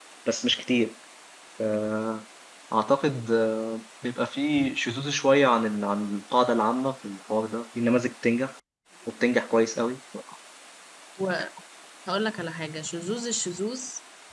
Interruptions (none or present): none